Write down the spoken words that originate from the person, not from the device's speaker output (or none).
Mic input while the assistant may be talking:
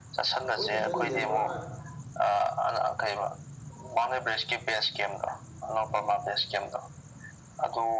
ꯑꯩꯈꯣꯏꯅ ꯆꯠꯂꯤꯗꯣ ꯄꯨꯔꯥ